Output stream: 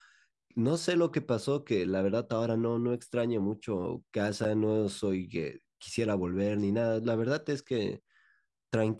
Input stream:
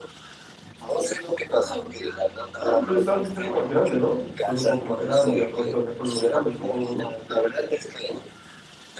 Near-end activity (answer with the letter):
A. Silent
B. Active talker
B